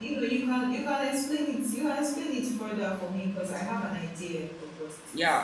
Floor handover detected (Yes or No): Yes